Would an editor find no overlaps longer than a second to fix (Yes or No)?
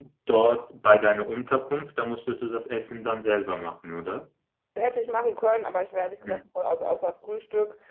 Yes